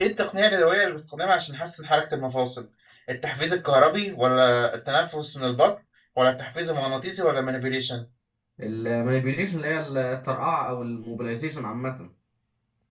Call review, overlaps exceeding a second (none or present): none